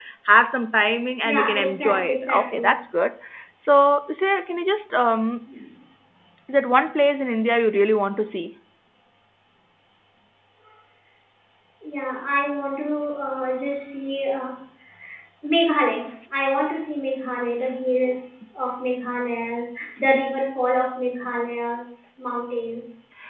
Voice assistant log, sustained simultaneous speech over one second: present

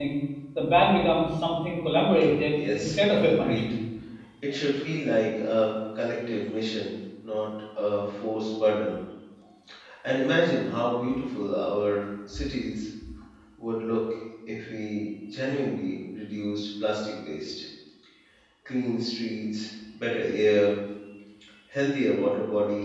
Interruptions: present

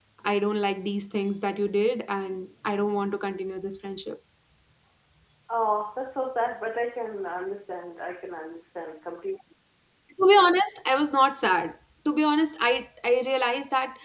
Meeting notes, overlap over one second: none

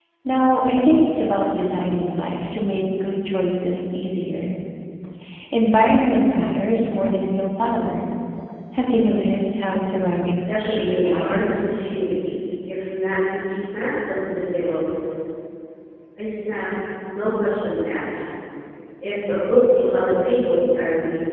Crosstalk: present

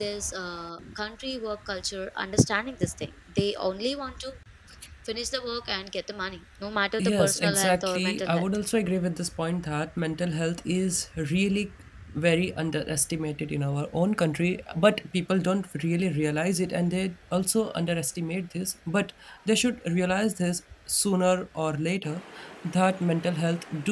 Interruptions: present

